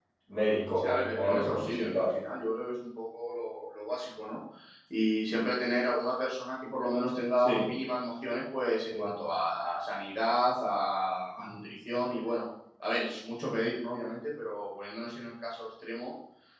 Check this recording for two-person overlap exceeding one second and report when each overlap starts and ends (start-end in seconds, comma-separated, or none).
0.8-2.0